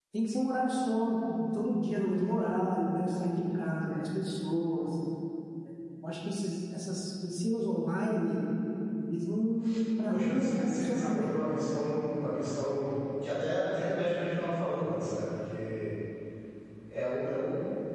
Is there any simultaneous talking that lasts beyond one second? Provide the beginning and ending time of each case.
10.1-11.4

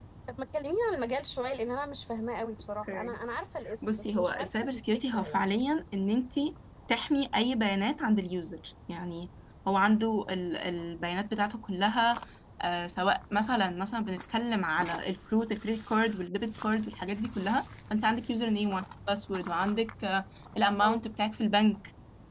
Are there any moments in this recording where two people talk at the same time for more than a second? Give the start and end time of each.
3.8-5.5

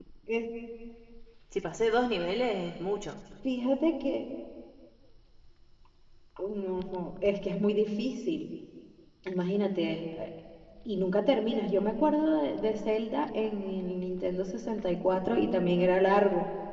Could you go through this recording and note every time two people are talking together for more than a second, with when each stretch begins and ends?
none

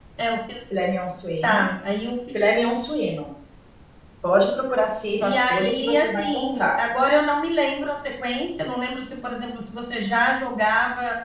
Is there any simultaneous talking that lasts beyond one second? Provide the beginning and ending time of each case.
5.2-6.8

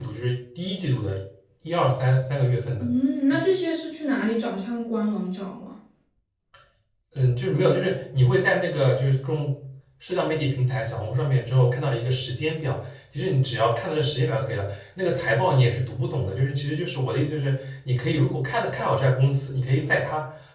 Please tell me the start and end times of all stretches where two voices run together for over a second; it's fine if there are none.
none

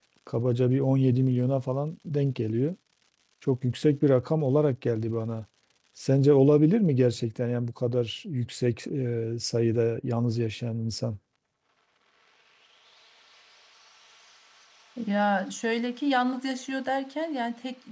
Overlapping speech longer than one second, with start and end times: none

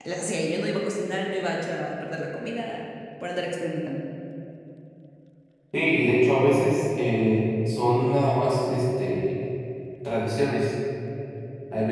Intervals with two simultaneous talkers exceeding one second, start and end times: none

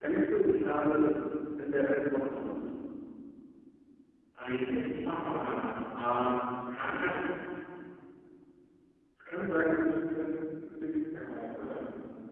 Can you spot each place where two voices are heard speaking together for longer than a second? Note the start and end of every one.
none

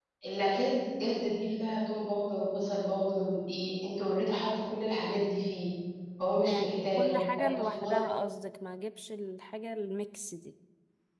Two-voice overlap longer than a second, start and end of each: 6.5-8.0

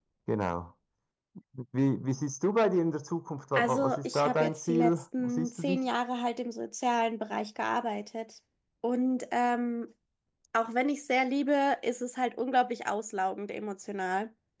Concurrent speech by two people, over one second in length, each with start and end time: 3.5-5.8

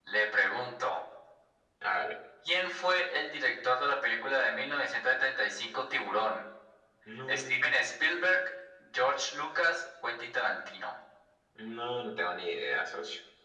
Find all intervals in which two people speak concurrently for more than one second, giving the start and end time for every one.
none

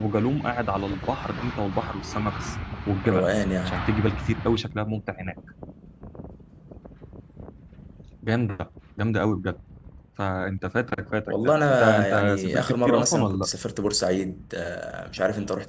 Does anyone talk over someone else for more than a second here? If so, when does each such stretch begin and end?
11.3-13.5

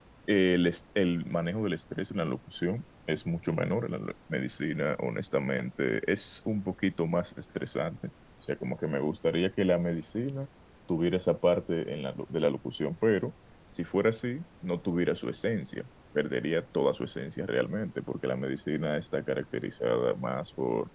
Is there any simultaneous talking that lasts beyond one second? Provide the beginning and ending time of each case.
none

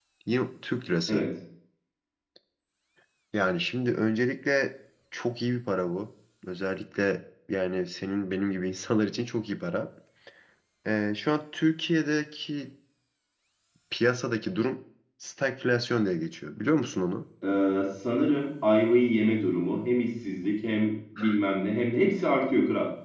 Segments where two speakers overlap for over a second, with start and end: none

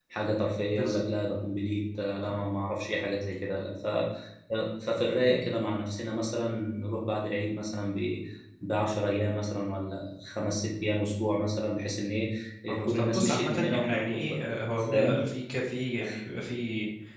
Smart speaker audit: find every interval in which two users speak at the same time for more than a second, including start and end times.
12.7-14.4

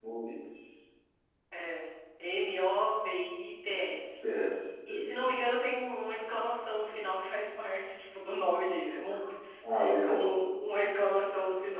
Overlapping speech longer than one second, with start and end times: none

